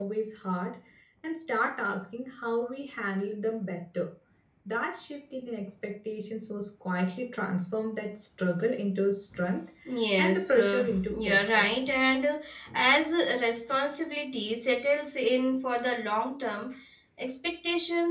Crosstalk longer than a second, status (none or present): present